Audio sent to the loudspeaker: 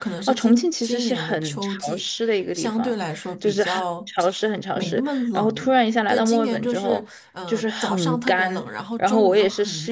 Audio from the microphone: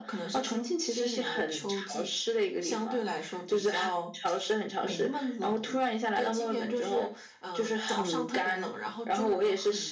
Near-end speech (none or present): none